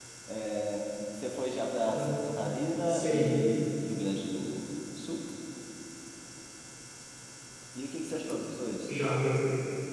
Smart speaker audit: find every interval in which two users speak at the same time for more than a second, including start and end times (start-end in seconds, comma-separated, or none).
none